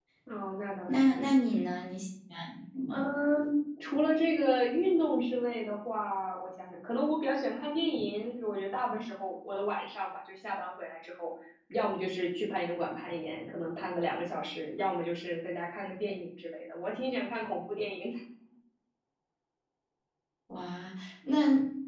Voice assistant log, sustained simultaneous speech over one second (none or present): none